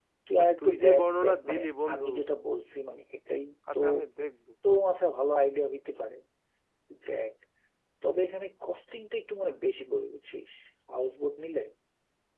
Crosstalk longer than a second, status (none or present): present